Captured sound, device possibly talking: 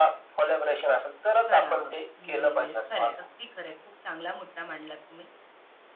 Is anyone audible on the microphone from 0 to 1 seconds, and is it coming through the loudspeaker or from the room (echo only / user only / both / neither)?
echo only